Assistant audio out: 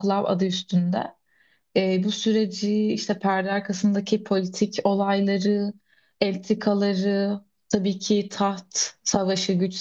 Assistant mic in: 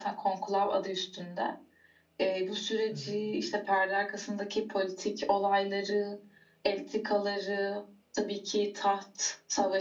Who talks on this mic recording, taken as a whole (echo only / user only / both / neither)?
both